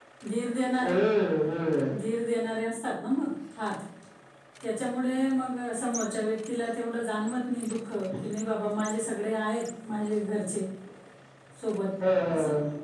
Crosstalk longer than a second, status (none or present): none